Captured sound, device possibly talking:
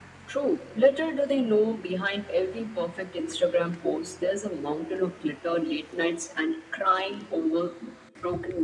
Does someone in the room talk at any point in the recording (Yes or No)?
No